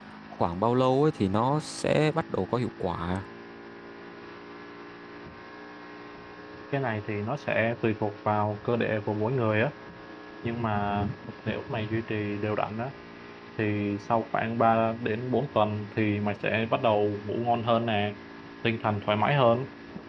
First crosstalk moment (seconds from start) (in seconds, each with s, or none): none